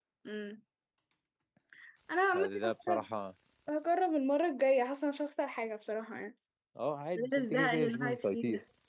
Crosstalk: present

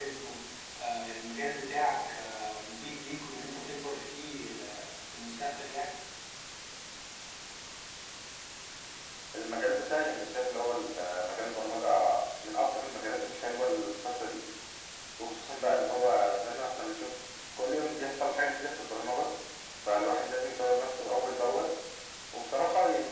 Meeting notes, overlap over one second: none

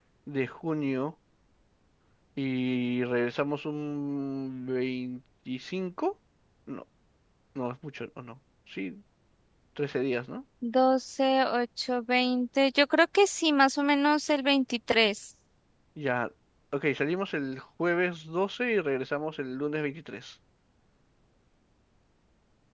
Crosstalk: none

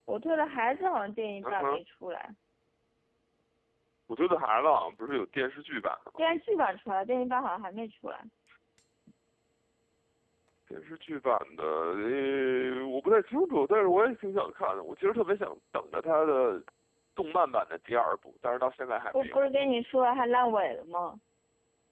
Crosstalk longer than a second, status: none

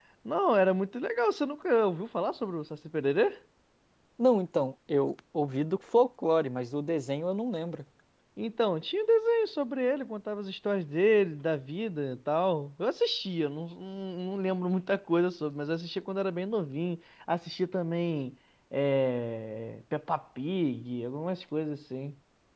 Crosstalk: none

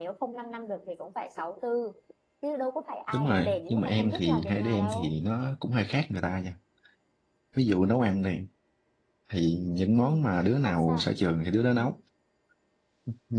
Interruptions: present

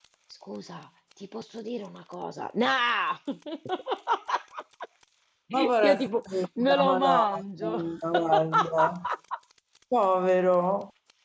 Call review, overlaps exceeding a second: present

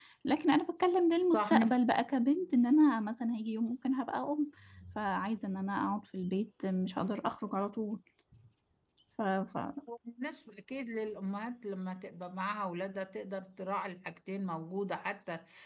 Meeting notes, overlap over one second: none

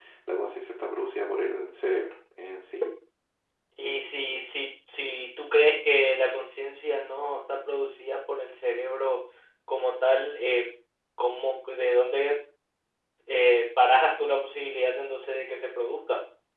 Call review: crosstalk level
none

